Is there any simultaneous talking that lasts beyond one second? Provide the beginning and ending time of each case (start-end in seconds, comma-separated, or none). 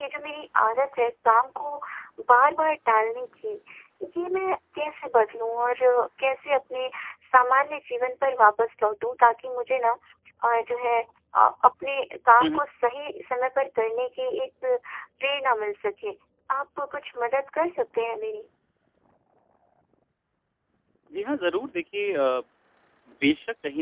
none